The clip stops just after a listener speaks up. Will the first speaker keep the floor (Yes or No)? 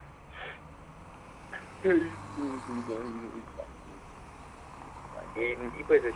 No